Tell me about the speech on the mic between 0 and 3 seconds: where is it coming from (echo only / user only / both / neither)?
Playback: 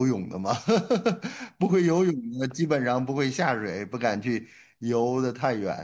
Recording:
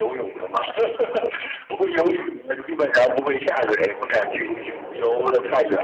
echo only